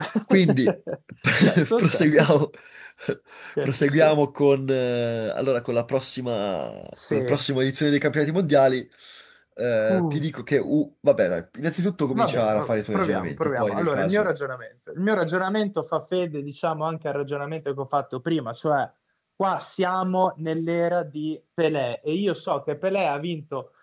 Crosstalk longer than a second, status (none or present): present